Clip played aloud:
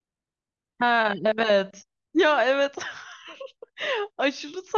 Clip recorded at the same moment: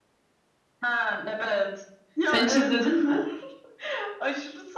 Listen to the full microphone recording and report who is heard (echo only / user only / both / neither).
both